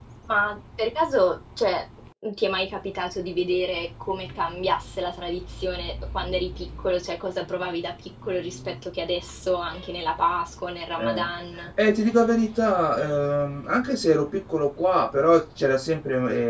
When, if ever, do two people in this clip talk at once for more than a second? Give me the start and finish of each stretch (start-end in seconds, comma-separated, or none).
none